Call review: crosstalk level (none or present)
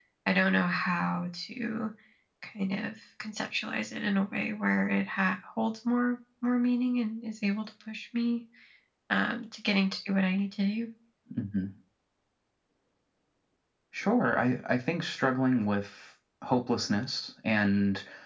none